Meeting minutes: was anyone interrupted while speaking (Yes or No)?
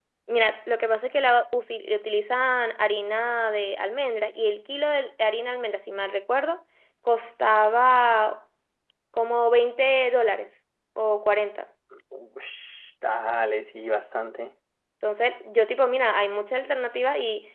No